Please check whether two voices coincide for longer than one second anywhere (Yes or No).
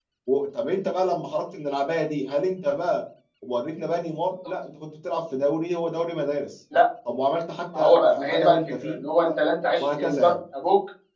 Yes